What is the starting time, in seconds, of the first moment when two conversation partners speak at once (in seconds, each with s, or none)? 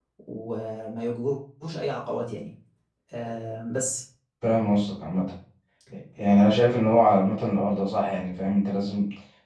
none